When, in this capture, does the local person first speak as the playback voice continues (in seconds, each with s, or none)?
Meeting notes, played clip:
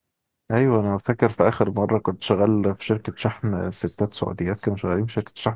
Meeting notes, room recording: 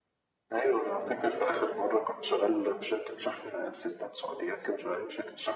none